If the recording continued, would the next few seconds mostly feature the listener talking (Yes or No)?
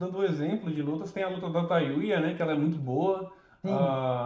Yes